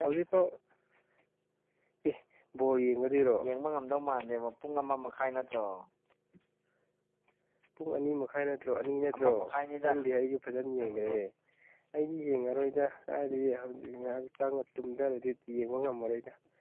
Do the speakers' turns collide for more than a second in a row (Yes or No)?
No